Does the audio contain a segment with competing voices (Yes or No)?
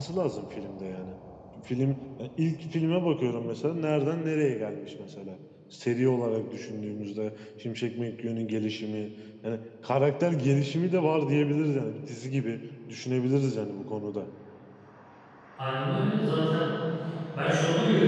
No